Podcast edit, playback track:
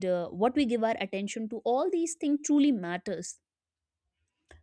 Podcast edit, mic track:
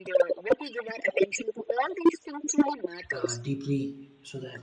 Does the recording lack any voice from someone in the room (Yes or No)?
No